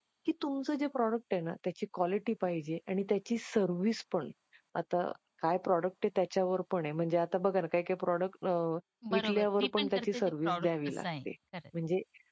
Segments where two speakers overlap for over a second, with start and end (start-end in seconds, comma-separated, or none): 9.2-11.0